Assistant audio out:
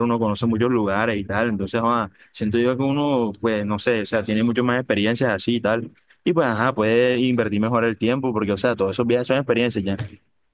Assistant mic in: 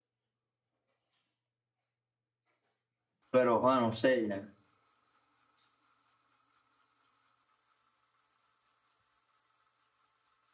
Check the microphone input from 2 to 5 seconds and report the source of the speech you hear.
user only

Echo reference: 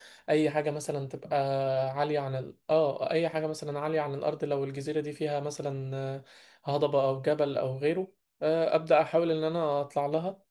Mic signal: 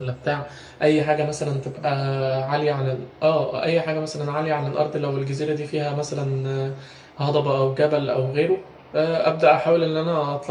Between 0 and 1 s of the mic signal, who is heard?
echo only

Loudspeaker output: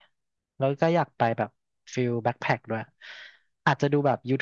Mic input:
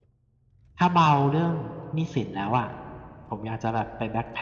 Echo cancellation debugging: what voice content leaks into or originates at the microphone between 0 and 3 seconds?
user only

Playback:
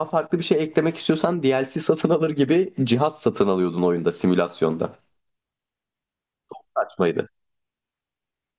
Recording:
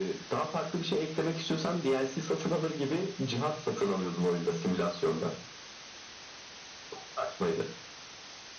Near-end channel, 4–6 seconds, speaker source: echo only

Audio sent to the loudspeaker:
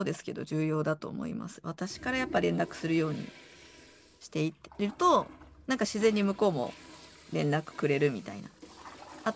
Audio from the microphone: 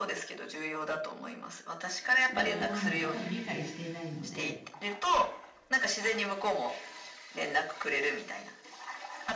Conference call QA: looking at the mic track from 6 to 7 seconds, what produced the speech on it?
echo only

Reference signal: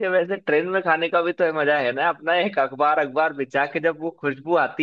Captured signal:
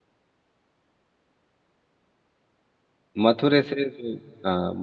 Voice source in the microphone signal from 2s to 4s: user only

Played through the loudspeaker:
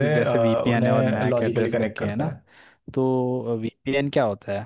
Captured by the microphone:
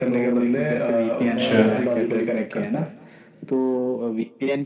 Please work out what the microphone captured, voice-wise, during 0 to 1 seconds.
echo only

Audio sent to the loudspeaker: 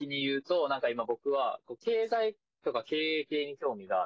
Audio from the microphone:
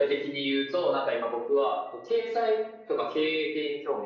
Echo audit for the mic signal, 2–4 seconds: echo only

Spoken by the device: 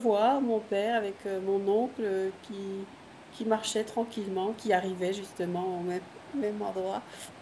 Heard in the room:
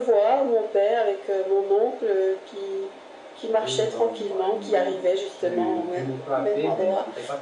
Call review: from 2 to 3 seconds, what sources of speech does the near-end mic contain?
echo only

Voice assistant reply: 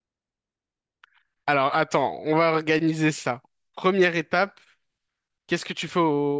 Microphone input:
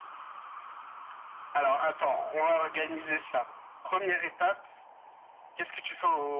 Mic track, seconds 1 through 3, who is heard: echo only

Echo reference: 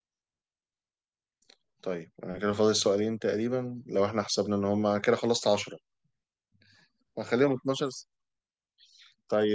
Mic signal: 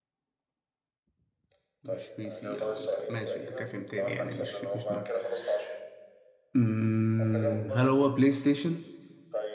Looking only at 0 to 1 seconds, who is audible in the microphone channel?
neither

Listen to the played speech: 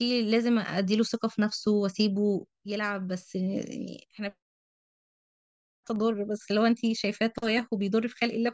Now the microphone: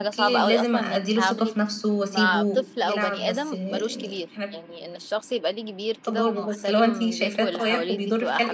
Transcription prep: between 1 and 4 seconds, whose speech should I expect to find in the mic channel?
both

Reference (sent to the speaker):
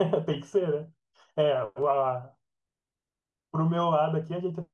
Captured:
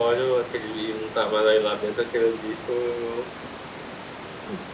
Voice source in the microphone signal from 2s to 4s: user only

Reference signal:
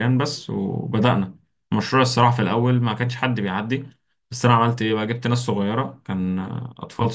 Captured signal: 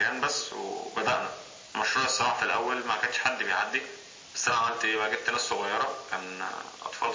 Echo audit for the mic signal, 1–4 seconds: echo only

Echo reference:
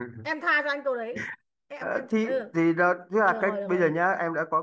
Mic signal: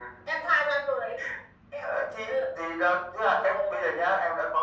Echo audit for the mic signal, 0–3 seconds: echo only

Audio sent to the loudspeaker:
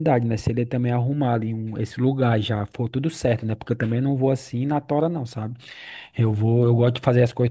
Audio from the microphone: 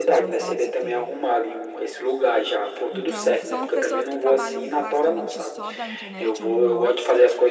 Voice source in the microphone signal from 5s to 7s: both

